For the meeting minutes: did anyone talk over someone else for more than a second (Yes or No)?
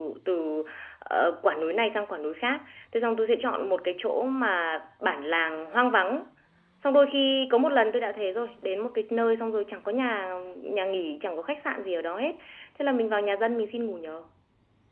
No